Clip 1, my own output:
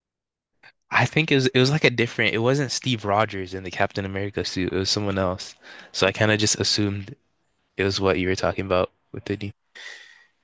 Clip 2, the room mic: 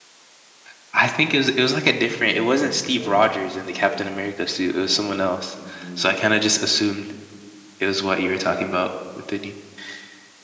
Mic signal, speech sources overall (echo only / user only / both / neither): both